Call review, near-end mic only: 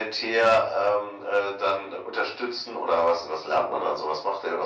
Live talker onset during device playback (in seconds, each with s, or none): none